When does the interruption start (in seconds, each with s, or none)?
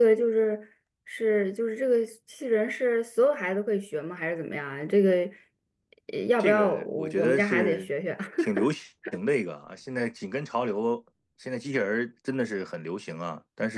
6.4 s